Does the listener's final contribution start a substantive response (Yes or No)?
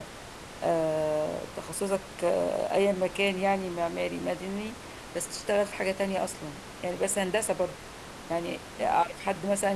No